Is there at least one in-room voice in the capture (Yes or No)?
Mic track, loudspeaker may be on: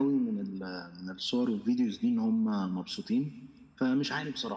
No